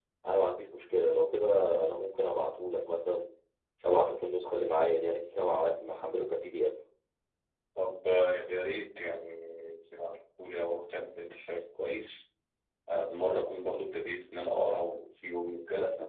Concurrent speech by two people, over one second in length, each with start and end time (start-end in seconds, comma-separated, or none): none